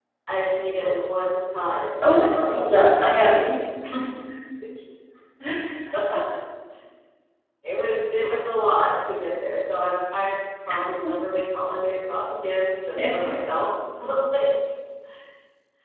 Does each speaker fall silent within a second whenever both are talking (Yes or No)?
No